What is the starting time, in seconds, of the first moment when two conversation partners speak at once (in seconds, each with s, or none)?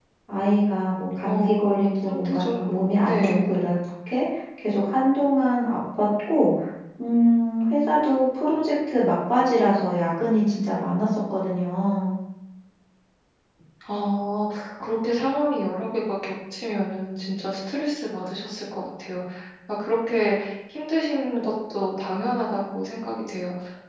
1.2 s